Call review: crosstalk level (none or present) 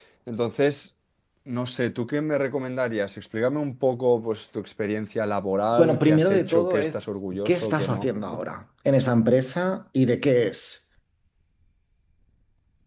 present